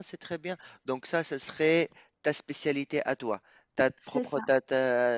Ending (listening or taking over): listening